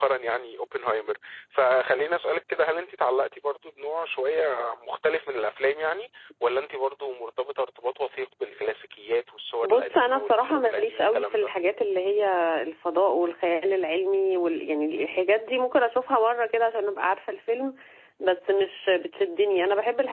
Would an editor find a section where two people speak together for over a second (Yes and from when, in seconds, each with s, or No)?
Yes, from 9.6 s